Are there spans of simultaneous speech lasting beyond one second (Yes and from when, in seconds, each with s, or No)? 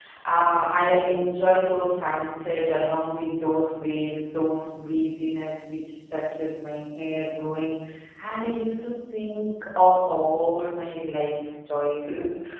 No